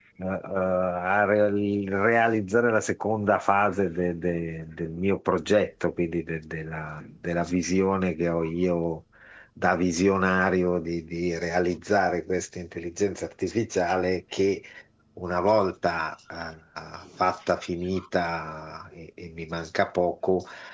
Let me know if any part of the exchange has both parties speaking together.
No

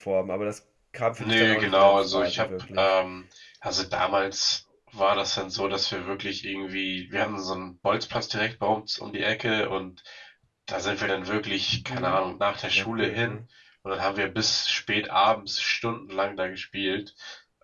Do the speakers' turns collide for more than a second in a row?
Yes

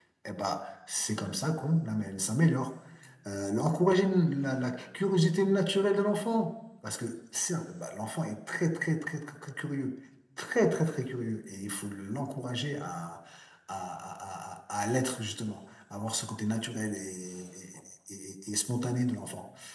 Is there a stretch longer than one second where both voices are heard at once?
No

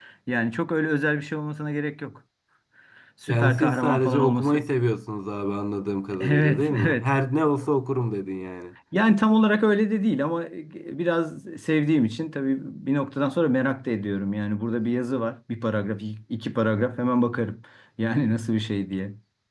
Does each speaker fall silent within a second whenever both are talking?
No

